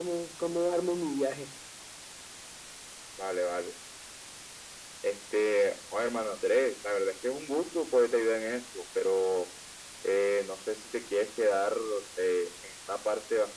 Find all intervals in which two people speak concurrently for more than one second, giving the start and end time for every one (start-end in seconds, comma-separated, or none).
none